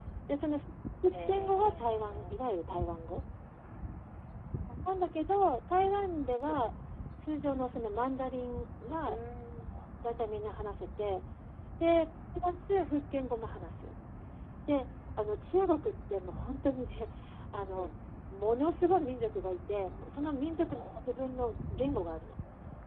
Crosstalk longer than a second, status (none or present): present